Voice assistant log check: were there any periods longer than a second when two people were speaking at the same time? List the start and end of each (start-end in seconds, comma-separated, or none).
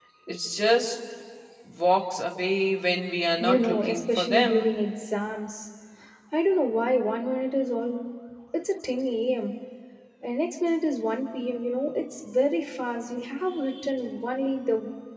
3.4-4.7